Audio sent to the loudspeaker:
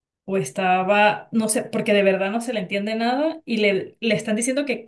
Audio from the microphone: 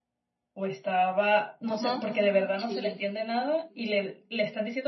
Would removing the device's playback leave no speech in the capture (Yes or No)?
No